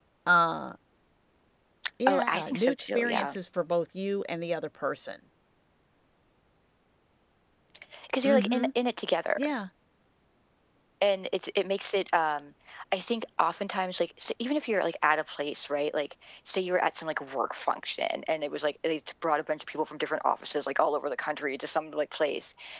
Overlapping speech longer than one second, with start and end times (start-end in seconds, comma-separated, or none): 2.1-3.3